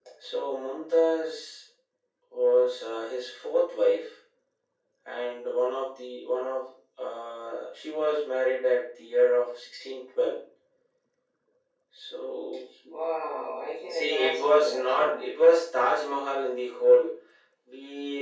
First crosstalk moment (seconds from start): 13.9 s

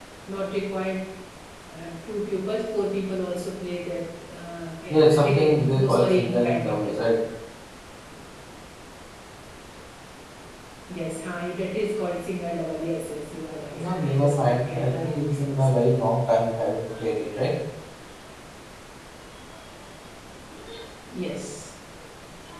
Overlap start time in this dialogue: 4.9 s

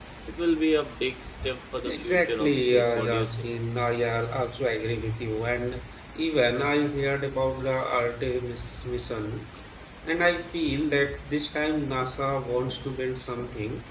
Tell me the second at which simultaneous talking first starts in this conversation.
1.9 s

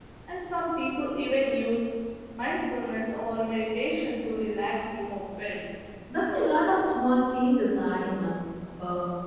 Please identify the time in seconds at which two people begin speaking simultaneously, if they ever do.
none

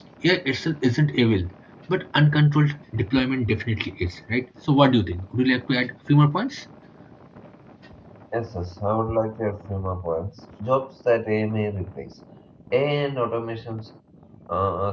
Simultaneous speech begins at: none

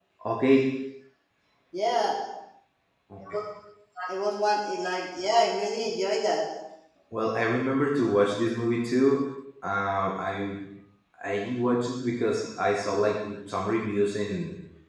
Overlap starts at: none

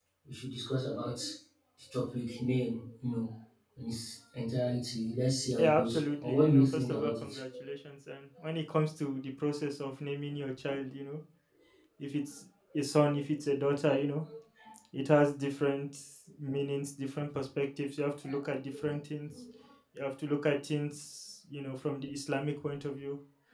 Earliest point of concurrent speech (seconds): 5.5 s

